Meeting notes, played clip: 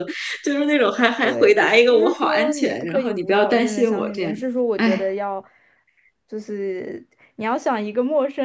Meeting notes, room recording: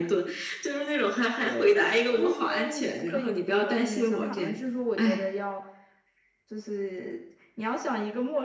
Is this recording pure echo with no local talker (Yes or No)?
No